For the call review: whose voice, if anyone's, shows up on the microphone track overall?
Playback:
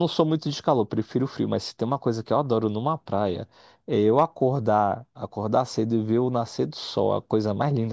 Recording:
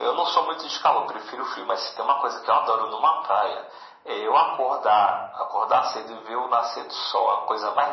echo only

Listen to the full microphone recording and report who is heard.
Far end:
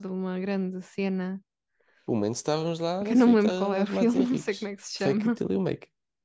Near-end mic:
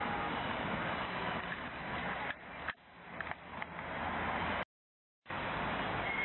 neither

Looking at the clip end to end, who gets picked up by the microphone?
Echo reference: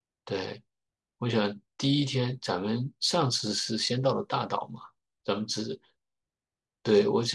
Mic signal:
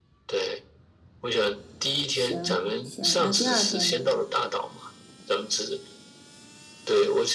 both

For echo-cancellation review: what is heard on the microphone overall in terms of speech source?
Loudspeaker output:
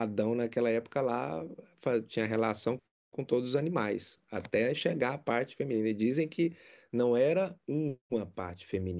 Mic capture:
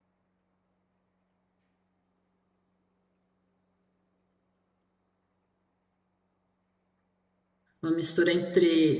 user only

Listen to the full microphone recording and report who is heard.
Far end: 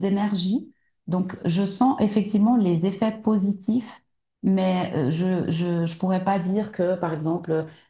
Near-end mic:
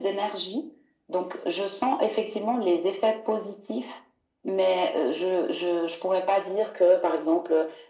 echo only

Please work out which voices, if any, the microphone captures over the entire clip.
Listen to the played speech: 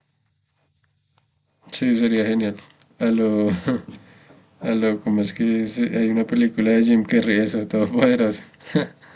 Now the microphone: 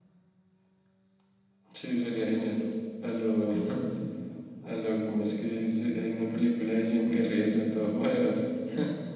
echo only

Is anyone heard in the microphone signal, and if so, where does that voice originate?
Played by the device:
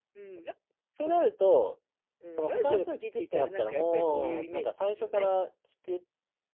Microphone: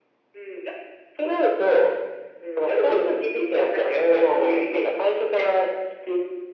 echo only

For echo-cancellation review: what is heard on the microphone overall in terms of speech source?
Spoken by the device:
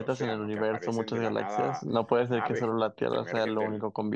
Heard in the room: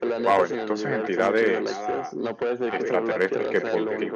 both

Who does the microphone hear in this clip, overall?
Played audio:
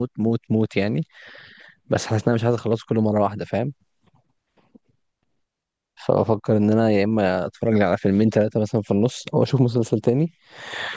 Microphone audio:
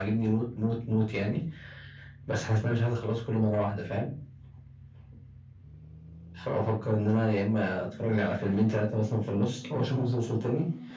echo only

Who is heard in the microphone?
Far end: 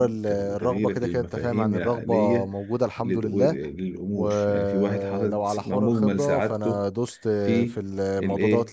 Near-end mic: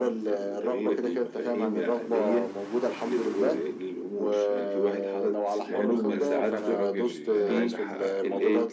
both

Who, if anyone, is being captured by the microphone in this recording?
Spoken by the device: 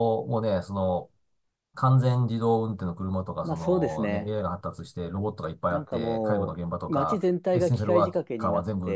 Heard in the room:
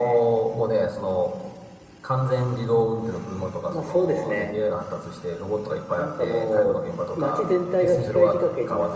echo only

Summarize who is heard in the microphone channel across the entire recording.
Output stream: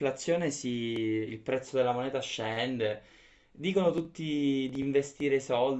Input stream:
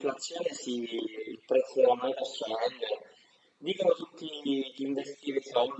echo only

